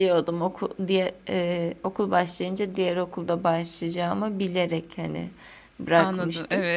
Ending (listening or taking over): taking over